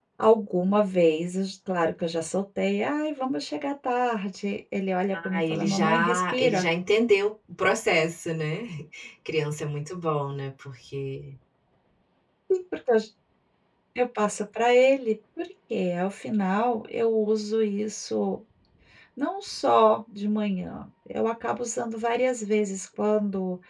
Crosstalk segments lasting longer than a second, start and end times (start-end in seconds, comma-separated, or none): 5.1-6.7